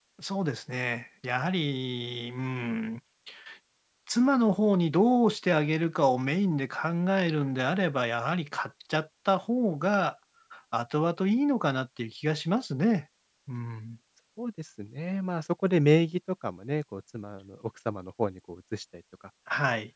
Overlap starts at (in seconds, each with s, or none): none